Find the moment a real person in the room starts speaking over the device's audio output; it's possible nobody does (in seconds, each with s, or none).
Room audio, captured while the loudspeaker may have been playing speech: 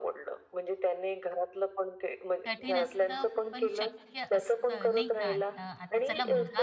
2.4 s